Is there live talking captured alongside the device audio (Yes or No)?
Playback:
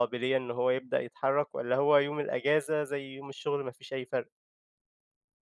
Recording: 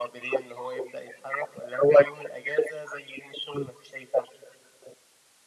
No